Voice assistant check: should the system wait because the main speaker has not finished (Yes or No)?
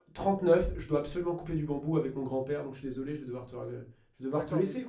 No